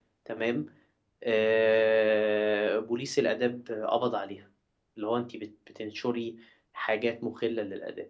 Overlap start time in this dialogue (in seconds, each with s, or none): none